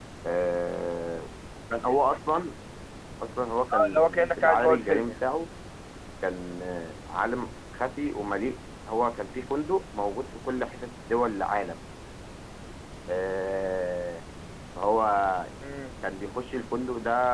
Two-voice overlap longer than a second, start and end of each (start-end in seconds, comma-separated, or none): 3.7-5.1